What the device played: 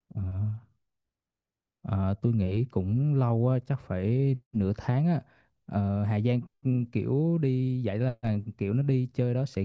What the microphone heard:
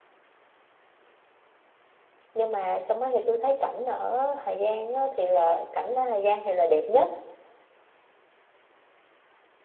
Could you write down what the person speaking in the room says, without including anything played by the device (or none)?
nhưng mà trong đó thì tôi thấy cảnh ở Hà Giang á, thì là cảnh ở Hà Giang thì là đẹp nhất